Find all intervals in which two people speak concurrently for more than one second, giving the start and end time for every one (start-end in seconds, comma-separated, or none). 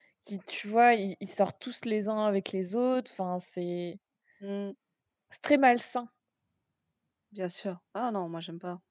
none